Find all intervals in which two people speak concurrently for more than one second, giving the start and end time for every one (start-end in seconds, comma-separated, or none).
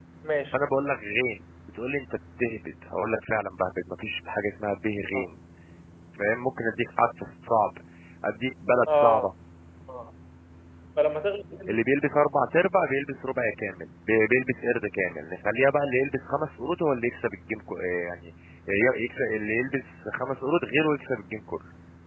none